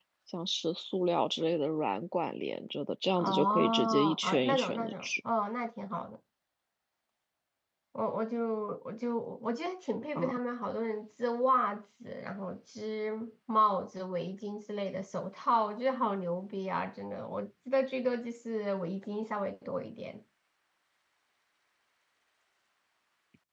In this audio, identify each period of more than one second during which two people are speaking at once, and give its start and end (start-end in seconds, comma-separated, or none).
3.2-5.1